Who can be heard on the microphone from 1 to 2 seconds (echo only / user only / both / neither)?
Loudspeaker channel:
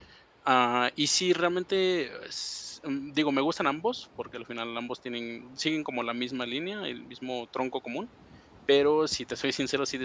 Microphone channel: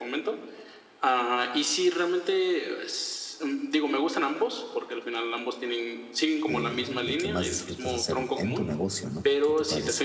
echo only